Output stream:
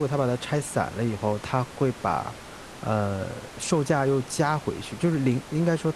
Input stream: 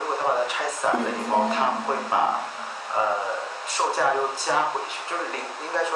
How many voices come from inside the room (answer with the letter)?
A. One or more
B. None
A